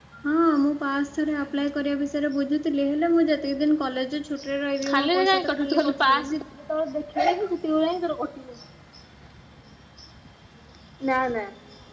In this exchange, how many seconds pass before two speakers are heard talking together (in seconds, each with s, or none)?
4.8 s